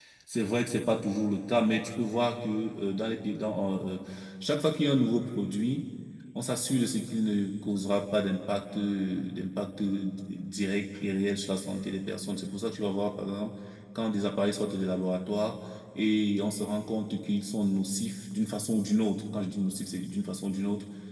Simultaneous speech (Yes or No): No